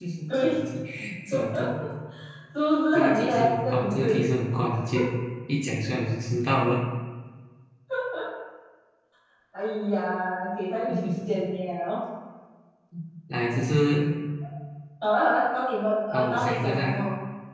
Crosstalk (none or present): present